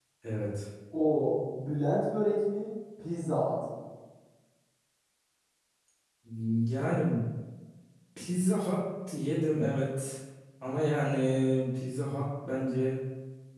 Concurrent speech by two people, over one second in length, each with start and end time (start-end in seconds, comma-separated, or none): none